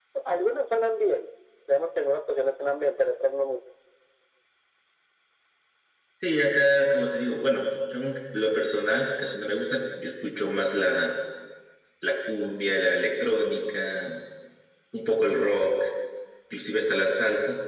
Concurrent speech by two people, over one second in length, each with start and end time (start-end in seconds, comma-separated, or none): none